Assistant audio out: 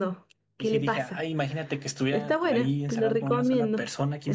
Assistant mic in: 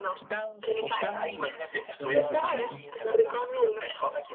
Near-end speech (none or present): present